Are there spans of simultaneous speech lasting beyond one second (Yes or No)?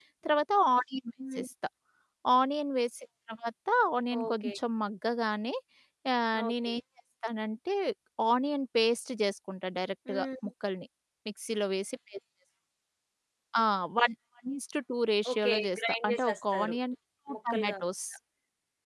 Yes